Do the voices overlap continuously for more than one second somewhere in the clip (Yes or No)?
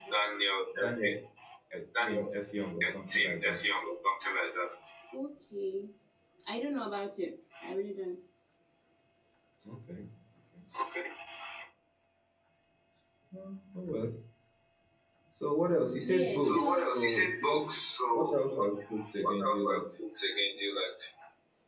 Yes